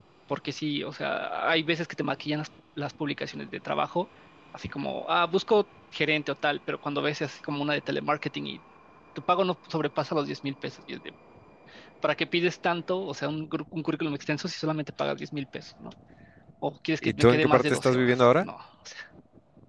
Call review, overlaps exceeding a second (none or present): present